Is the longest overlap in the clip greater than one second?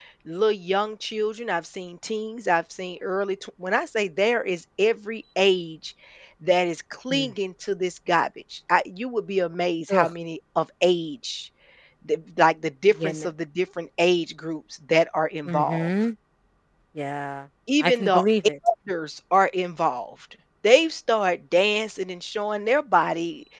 No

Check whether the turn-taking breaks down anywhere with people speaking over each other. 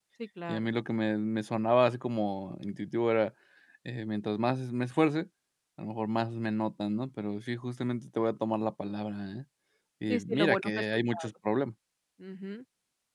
Yes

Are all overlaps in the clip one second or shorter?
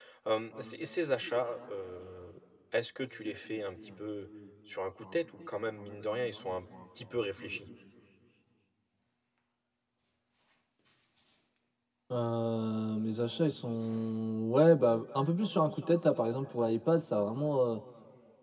Yes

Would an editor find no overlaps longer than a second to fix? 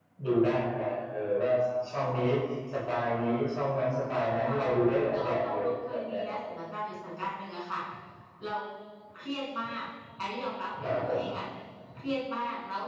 No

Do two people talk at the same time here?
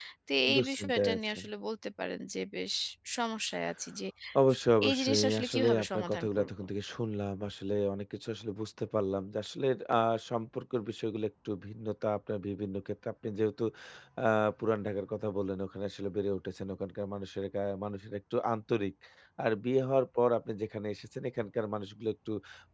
Yes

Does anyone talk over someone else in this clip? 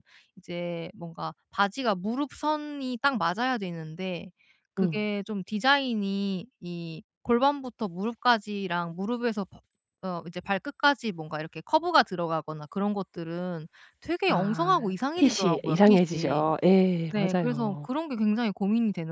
Yes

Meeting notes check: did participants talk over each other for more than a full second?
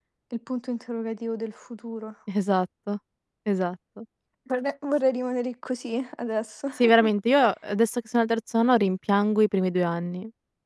No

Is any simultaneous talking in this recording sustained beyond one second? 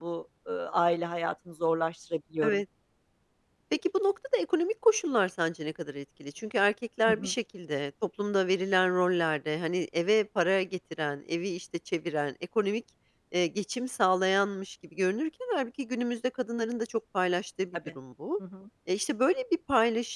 No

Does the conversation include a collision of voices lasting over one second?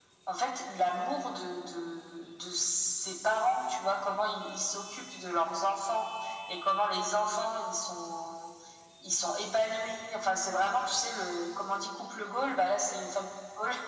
No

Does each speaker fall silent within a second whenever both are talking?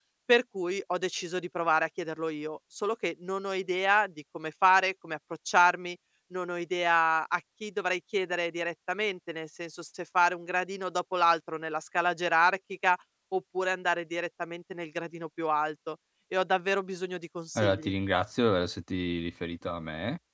Yes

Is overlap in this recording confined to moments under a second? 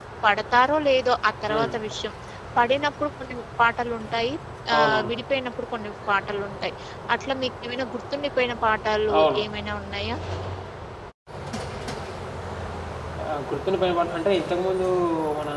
Yes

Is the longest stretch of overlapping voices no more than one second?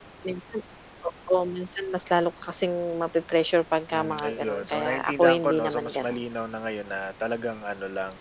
No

